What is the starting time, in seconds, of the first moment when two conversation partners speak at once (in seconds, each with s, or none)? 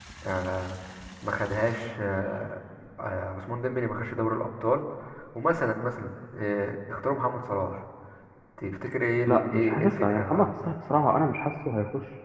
9.3 s